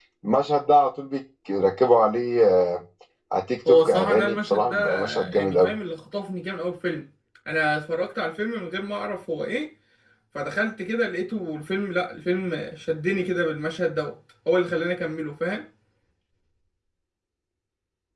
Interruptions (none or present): present